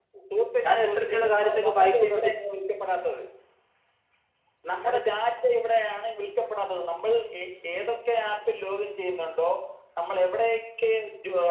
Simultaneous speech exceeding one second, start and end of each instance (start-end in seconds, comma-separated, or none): 0.9-2.3